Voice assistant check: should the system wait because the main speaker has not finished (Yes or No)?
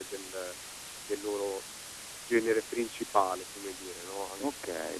No